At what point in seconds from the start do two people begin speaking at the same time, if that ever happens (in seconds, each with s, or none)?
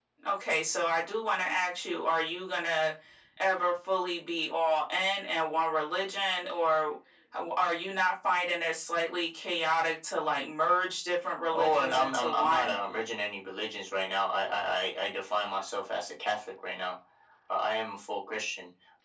11.5 s